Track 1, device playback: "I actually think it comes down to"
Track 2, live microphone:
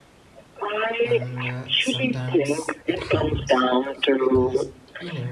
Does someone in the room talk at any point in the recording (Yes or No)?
Yes